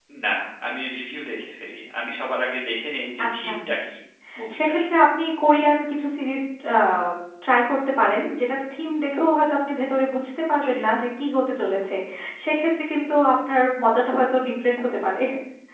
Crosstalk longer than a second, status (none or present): none